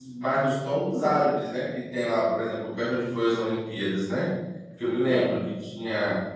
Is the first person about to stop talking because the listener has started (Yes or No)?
No